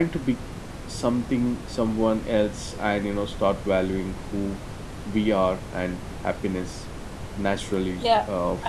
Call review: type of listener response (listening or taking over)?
taking over